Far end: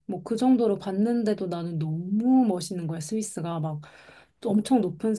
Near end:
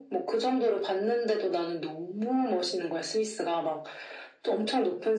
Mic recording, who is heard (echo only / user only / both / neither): echo only